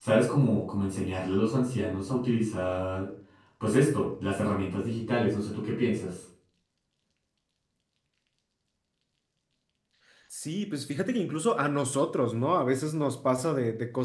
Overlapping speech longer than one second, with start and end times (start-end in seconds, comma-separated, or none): none